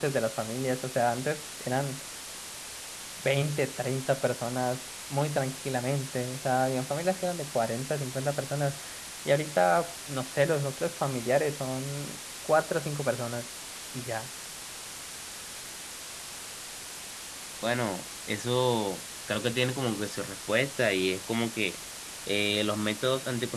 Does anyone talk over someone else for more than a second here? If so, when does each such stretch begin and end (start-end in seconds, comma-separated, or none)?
none